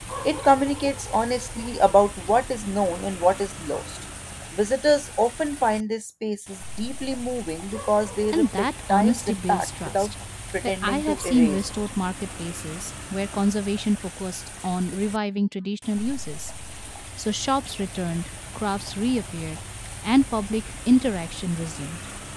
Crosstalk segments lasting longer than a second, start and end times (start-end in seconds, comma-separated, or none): 8.3-10.1, 10.6-11.9